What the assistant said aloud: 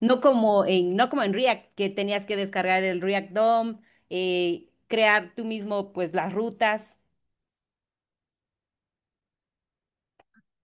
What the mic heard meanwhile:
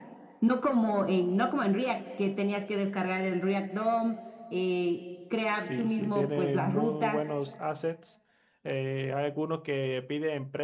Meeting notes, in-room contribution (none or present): present